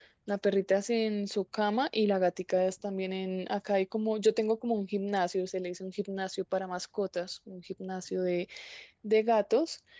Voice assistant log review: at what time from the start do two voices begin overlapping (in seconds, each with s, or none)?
none